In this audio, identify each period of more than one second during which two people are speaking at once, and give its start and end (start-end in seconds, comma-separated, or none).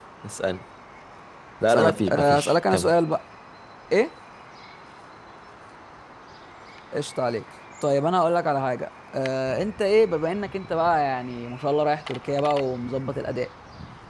1.7-2.9